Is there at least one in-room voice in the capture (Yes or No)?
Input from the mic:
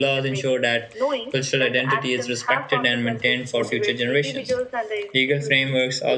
Yes